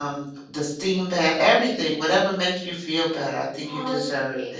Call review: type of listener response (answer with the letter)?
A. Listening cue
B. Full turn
B